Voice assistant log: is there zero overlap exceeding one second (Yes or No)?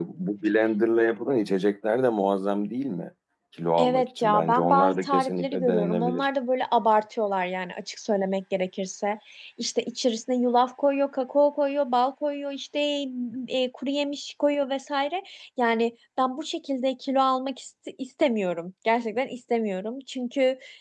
No